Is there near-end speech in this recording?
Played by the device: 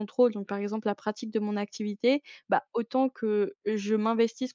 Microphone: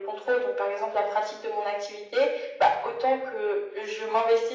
No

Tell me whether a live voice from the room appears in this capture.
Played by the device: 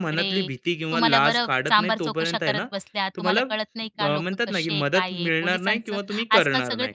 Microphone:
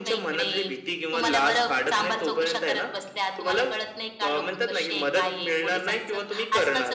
No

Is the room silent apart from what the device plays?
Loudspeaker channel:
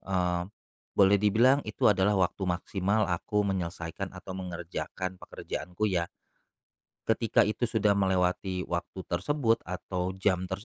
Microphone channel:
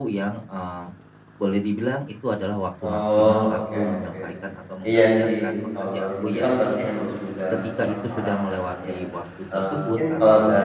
No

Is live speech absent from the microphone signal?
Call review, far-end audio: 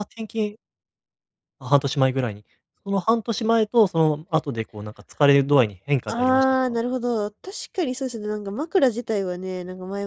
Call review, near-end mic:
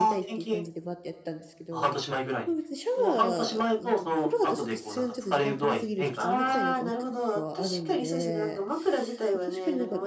No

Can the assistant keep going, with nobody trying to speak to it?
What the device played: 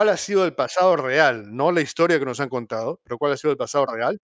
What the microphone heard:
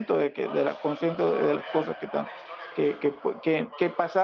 No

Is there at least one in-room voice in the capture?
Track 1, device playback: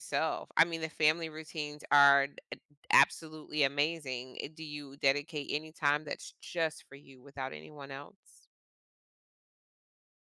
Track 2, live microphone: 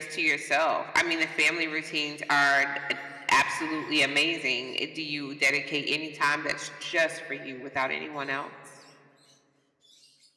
No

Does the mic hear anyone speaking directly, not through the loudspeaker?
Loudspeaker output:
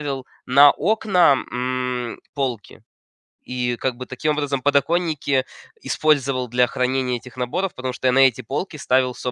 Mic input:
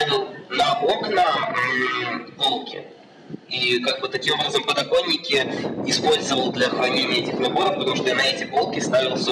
No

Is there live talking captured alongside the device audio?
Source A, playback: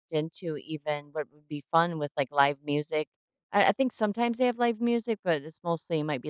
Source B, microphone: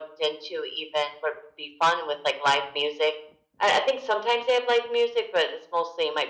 No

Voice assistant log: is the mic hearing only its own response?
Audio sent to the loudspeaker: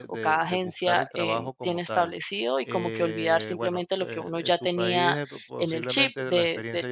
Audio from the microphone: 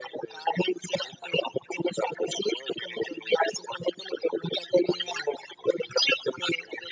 Yes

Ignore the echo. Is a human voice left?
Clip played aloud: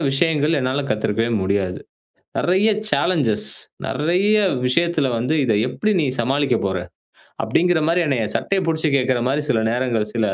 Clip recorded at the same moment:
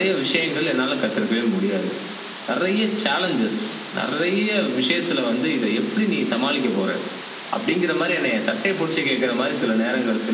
No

